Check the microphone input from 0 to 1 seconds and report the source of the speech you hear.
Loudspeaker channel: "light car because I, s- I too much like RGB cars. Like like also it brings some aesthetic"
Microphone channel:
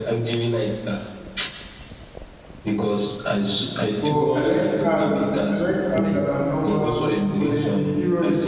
echo only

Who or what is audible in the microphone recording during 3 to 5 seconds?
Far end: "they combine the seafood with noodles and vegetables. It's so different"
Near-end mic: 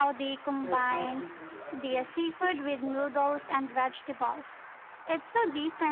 both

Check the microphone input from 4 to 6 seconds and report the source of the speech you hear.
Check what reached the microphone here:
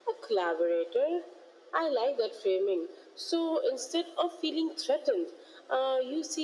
echo only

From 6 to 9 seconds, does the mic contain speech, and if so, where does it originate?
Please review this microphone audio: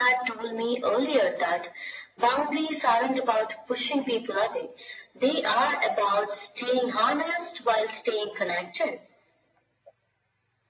echo only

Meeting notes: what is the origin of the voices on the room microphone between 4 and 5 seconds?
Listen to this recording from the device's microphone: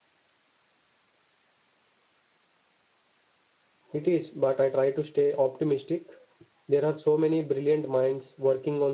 user only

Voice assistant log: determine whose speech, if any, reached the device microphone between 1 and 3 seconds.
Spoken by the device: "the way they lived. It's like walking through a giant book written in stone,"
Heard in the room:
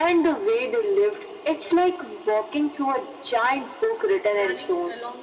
echo only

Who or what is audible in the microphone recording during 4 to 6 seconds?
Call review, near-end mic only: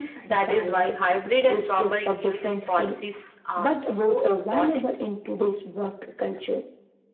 echo only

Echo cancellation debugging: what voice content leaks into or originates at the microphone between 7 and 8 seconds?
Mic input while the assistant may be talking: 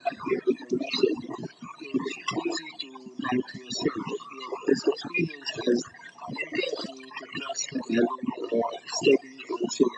echo only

